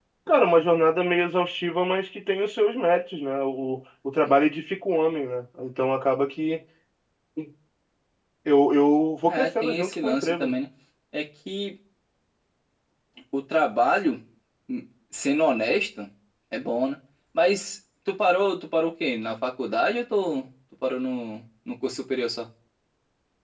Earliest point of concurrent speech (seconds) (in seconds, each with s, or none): 9.3 s